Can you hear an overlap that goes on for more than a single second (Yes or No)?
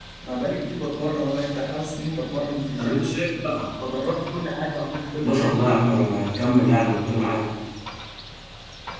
No